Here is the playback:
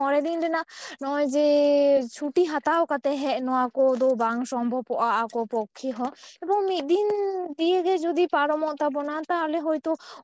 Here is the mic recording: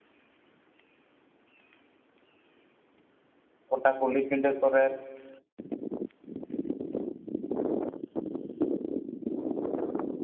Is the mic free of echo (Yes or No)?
Yes